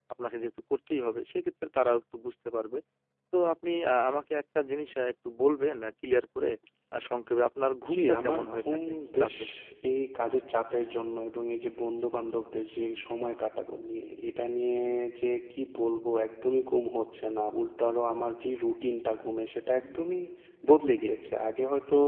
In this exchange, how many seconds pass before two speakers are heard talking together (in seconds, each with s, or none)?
7.8 s